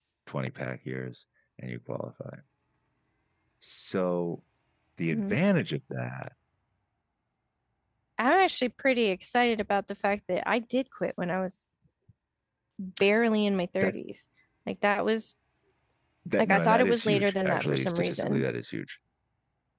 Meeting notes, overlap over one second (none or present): present